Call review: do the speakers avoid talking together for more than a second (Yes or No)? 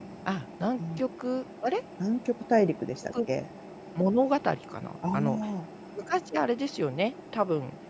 Yes